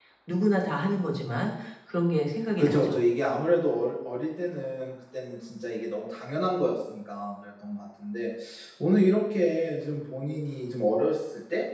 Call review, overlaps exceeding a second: none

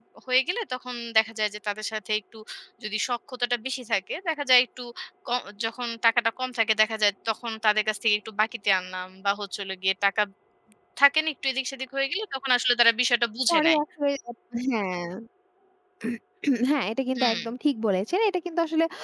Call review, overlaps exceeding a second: none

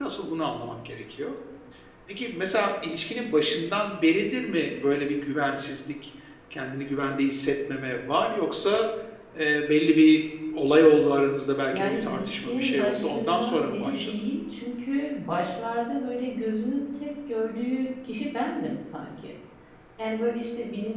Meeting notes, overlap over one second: present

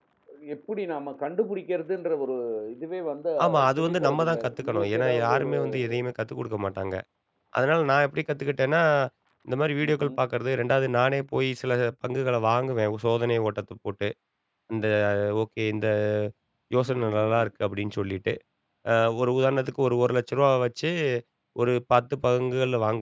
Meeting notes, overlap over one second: present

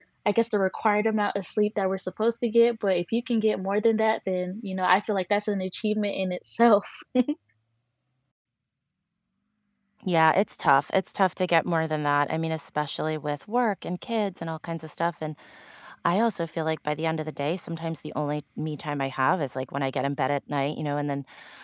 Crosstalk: none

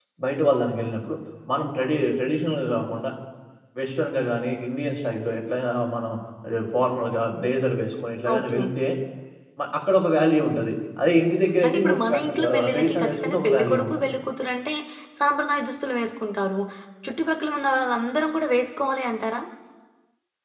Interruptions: present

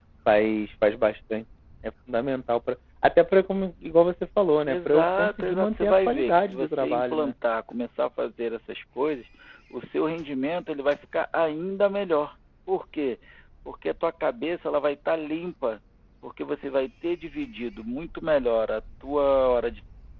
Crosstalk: present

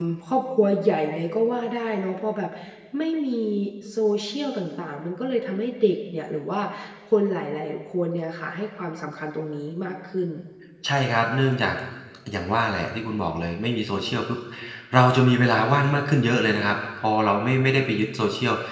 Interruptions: none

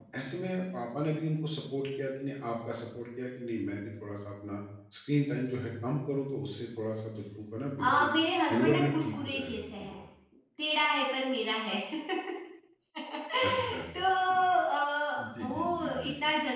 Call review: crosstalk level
present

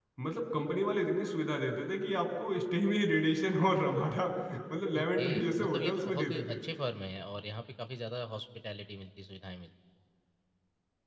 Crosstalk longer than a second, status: present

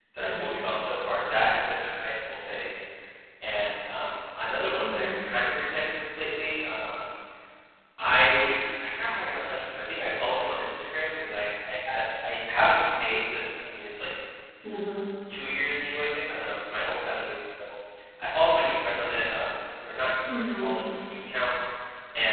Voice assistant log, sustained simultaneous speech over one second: none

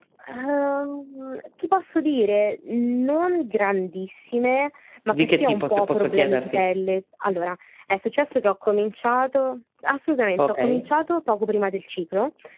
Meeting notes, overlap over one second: present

